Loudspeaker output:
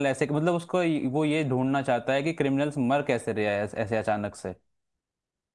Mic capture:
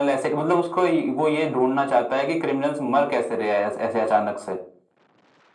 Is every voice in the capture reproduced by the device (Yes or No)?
Yes